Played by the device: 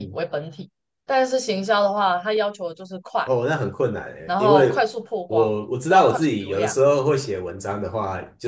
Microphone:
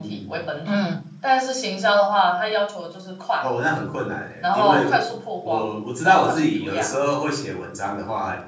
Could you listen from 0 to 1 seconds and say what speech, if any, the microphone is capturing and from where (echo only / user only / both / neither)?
both